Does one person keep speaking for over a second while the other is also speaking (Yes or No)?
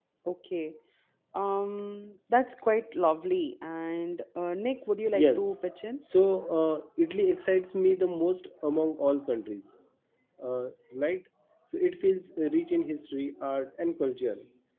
No